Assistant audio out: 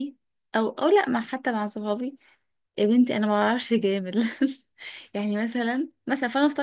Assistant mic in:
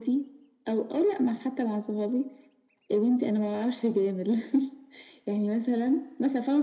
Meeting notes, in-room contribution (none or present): none